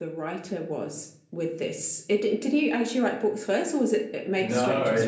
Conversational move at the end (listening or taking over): taking over